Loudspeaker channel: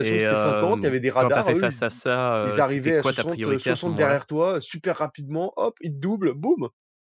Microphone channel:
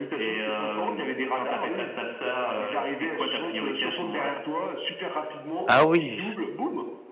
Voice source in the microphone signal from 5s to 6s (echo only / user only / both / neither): both